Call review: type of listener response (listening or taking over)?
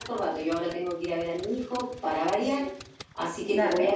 listening